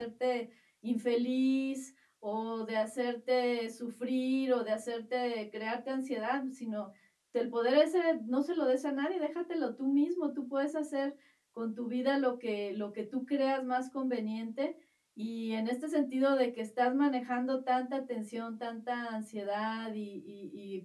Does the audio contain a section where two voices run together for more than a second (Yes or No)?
No